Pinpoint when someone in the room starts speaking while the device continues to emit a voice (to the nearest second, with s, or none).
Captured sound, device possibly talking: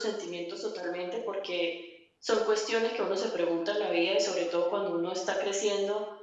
none